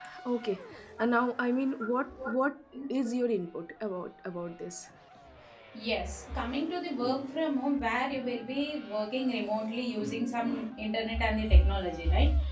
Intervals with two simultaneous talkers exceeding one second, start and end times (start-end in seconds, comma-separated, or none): none